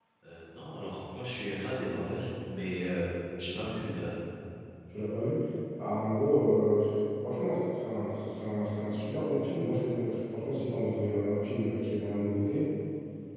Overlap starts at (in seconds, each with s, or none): none